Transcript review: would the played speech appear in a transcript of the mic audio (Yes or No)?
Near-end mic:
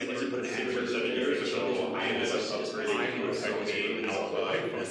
Yes